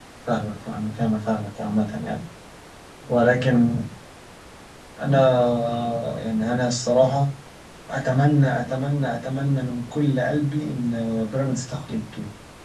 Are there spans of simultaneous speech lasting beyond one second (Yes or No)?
No